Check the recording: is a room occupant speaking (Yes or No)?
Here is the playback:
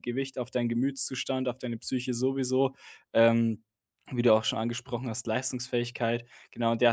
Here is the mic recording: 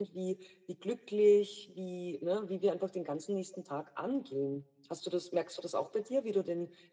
Yes